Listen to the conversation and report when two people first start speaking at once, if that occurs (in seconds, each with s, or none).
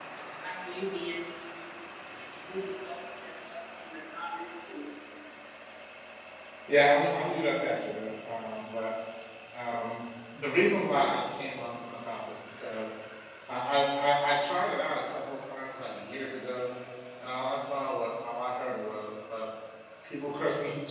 none